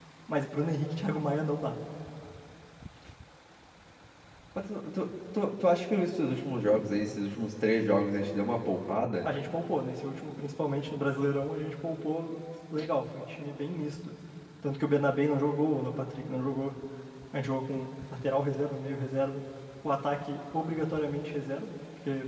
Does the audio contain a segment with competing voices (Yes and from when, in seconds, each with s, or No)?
No